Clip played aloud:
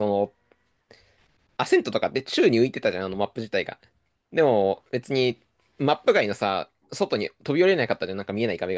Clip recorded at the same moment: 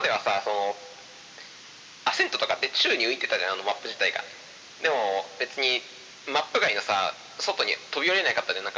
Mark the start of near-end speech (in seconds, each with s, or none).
none